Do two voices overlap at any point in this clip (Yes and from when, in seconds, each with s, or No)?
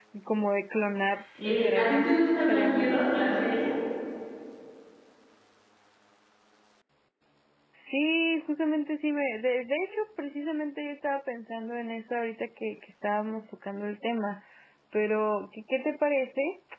Yes, from 1.3 s